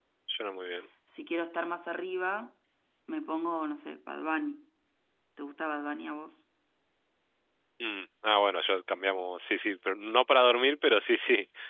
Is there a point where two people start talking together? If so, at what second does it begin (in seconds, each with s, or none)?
none